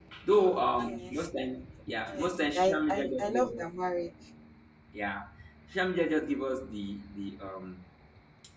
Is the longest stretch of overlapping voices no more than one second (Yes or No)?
No